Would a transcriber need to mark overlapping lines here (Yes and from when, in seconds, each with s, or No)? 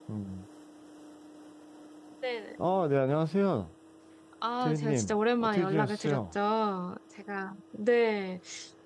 Yes, from 4.6 s